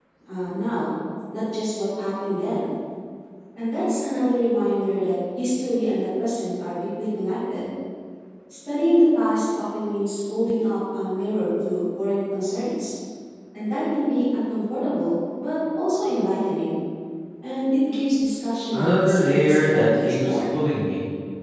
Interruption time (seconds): 18.7 s

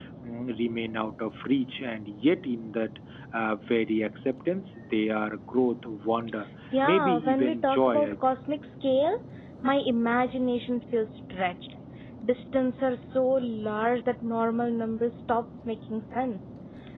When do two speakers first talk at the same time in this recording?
6.7 s

